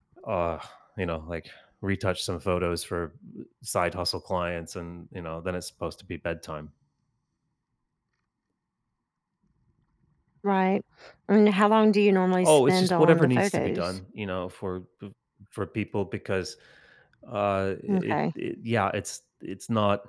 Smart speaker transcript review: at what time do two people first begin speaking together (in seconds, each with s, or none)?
12.4 s